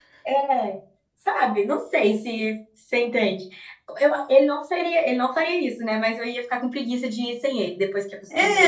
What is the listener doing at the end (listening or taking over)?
taking over